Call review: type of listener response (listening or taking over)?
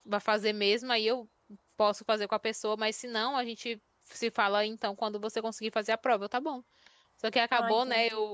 listening